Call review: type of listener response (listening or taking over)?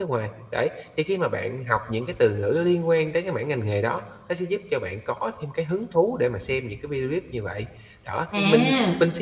listening